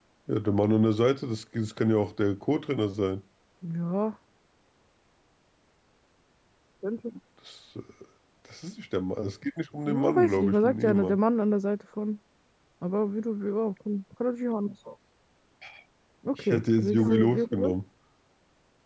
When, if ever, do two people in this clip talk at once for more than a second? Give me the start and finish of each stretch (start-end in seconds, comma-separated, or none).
9.9-11.2, 16.4-17.7